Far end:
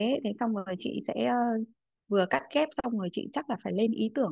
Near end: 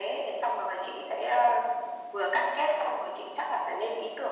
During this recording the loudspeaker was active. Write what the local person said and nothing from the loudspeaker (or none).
none